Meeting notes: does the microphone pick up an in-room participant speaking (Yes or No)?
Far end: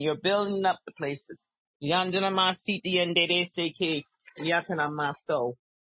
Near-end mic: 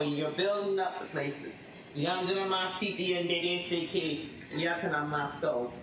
No